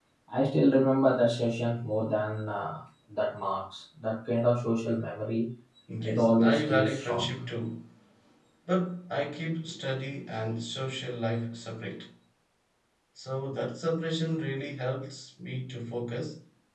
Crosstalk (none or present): present